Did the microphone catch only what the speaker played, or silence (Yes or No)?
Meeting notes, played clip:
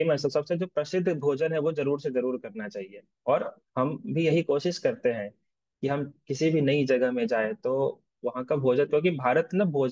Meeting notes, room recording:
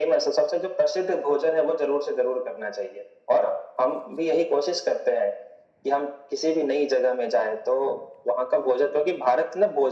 Yes